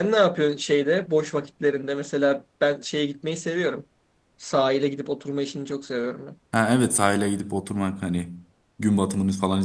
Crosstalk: none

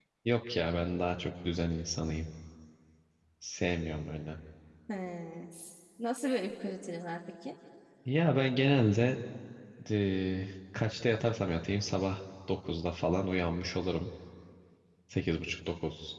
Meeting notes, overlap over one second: none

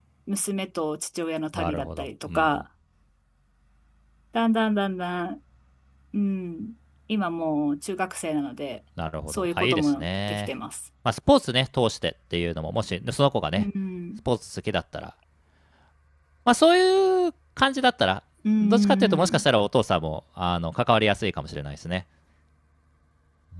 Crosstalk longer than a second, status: present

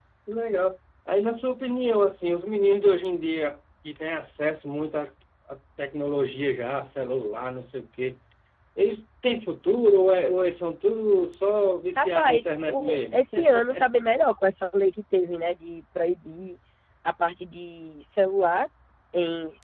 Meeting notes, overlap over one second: present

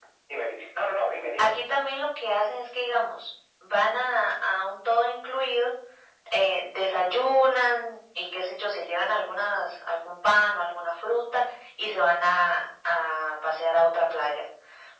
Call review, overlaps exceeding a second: none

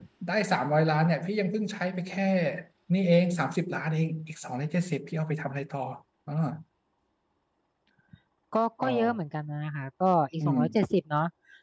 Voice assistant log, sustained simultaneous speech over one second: none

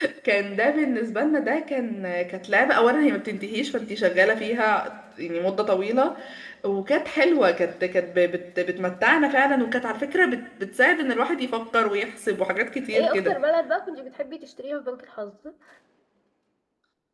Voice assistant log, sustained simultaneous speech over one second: none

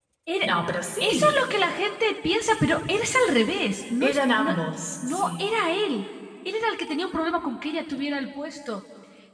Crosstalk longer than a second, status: none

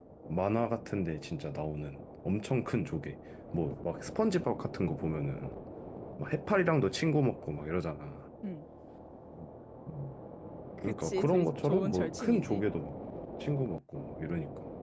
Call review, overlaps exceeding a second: present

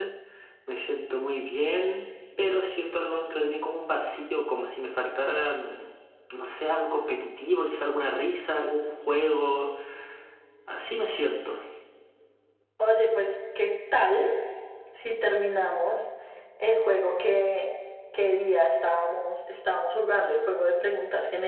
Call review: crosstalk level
none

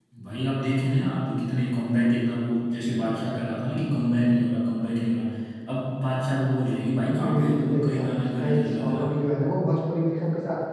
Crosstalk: present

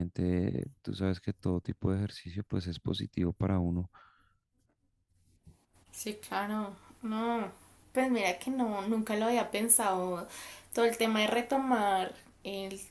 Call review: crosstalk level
none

